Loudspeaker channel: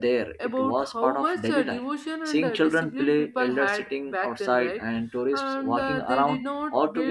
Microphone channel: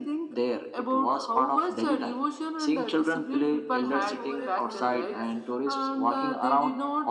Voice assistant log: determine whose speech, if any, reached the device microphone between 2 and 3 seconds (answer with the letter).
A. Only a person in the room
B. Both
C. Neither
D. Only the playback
D